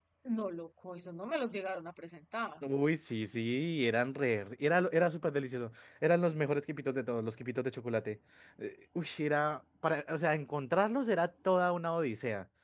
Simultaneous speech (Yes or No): No